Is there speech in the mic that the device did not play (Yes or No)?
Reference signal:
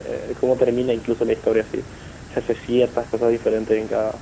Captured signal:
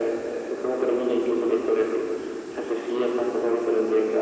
No